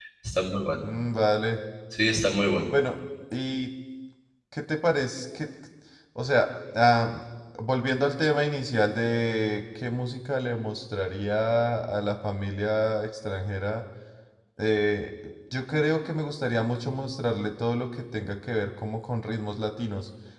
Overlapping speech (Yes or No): No